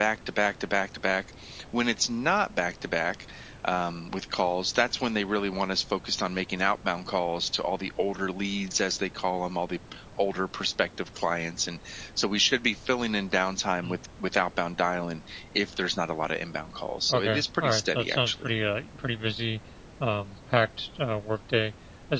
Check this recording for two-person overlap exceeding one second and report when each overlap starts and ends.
17.1-18.3

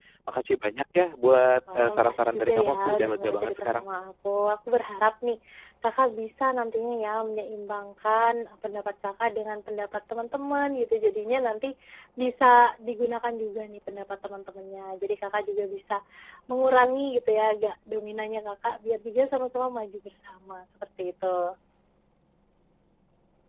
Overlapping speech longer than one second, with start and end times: 1.8-3.9

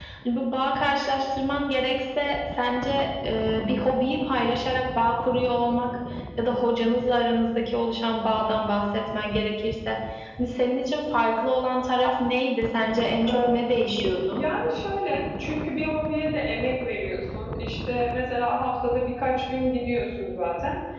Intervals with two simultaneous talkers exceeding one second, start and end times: none

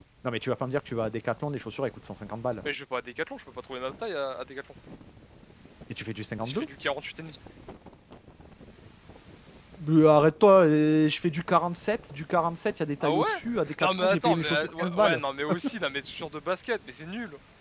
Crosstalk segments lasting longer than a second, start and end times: 13.8-15.2

